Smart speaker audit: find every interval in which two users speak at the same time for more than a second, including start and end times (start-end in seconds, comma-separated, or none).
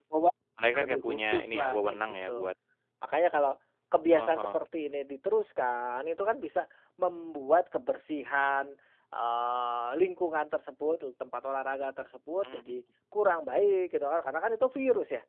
0.7-2.5